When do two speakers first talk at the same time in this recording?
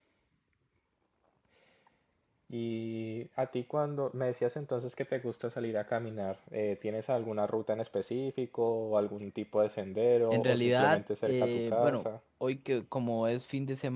10.3 s

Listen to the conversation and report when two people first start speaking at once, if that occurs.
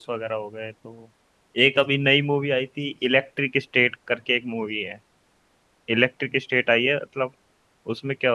none

